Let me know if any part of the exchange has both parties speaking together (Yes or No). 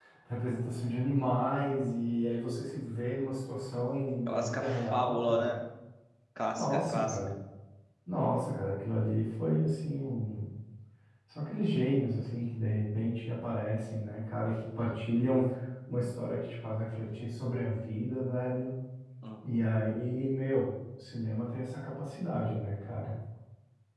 Yes